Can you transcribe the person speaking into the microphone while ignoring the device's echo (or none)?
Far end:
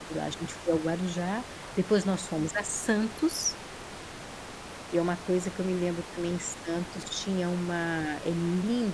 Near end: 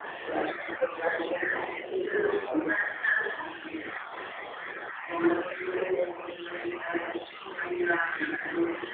É.